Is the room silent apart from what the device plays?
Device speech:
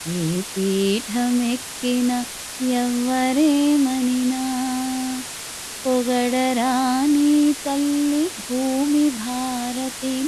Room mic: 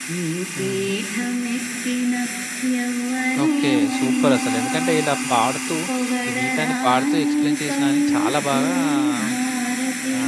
No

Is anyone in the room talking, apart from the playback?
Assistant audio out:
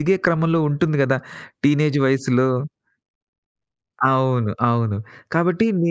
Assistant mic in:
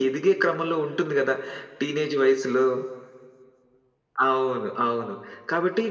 No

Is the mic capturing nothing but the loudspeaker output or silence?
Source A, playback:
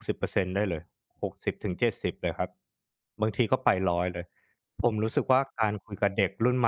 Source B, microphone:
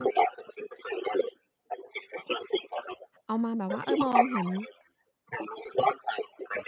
No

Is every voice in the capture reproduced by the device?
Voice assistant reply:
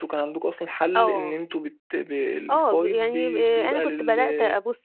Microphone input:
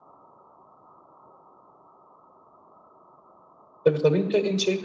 No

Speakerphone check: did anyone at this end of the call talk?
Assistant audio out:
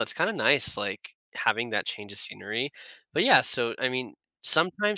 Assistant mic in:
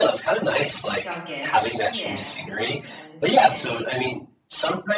Yes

